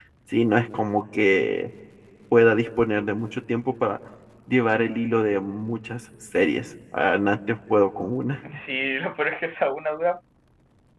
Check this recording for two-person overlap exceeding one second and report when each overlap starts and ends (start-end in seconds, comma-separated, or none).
none